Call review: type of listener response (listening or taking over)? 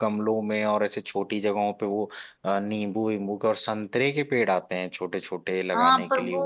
taking over